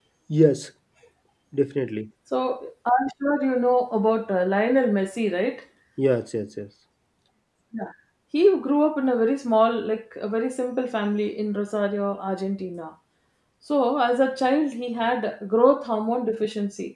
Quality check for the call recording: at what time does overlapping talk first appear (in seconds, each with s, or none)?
none